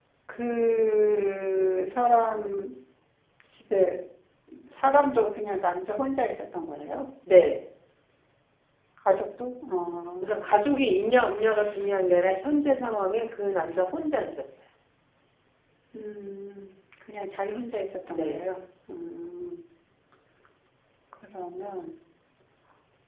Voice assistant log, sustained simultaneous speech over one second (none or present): none